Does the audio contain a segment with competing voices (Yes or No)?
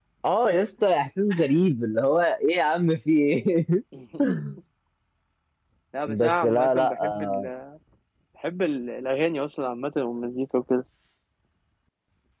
Yes